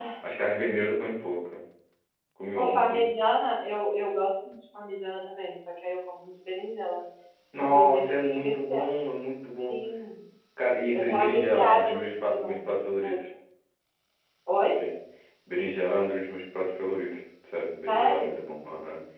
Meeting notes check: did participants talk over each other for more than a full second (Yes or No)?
Yes